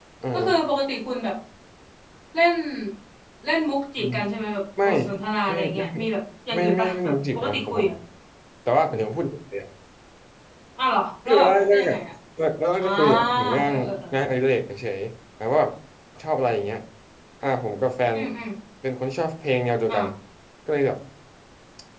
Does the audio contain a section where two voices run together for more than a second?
Yes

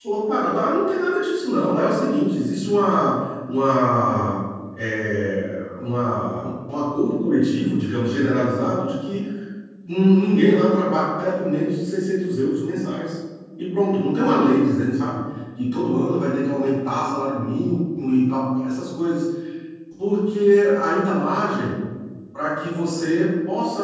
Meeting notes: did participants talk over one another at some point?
No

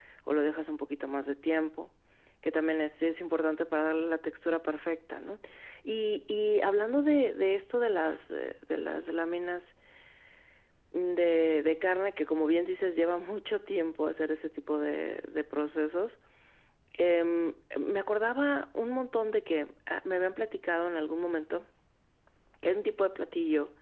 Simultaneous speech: No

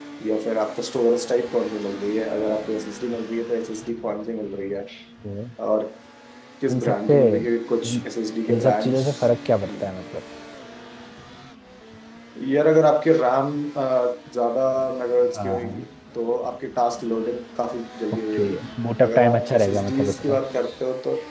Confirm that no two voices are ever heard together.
No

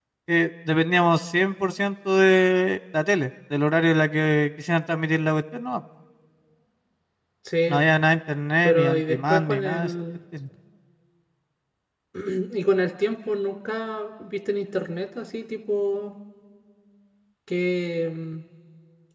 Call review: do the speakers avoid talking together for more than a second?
No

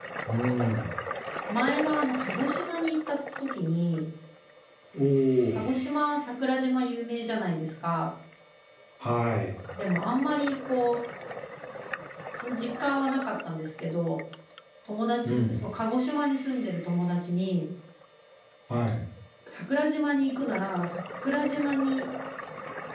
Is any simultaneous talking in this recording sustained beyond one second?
No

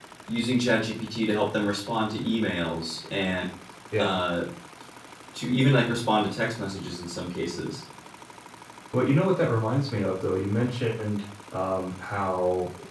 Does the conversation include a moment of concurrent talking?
No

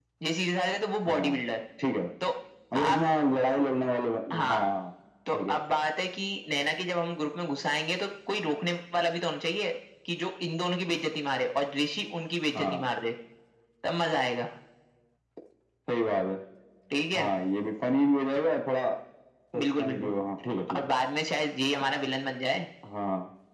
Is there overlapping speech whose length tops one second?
No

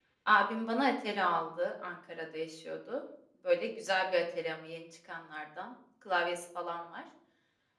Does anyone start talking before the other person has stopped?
No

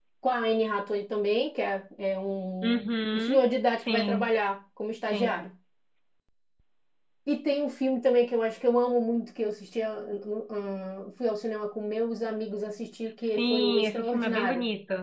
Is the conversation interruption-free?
No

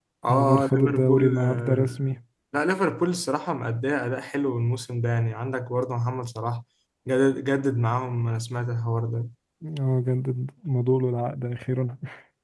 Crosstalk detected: Yes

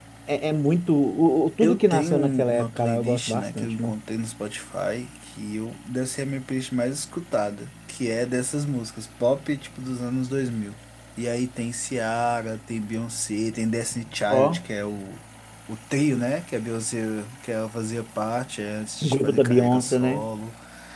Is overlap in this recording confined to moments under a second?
No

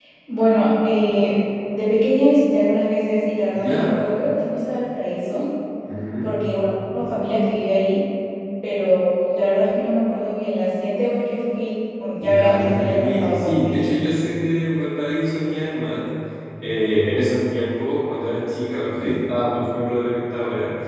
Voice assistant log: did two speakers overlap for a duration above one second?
Yes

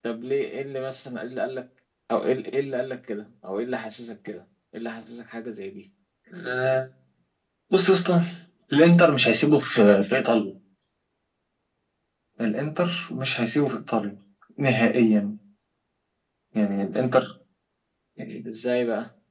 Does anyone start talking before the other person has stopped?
No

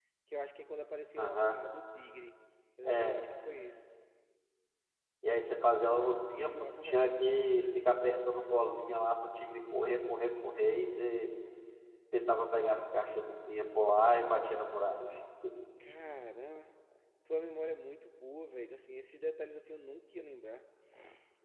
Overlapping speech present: Yes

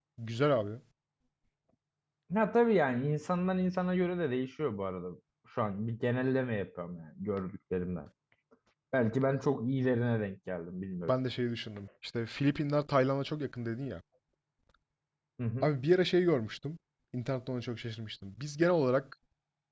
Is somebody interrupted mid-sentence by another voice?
No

